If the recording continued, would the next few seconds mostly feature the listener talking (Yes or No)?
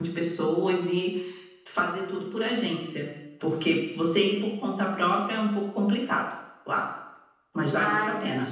Yes